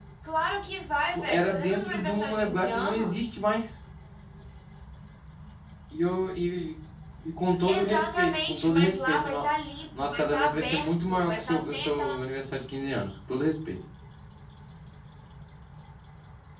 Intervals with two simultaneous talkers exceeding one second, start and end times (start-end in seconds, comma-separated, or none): 1.1-3.4, 7.7-9.4, 10.0-12.2